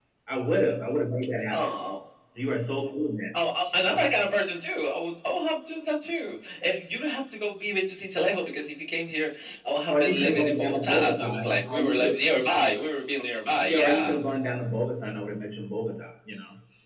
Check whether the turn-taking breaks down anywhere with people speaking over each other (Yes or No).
Yes